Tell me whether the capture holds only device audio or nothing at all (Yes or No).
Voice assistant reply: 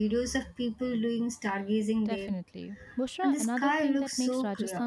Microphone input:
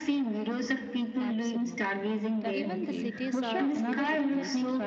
No